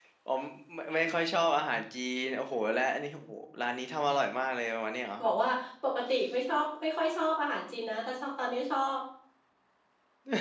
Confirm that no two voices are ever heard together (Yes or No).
Yes